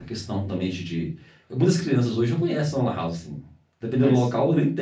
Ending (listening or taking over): listening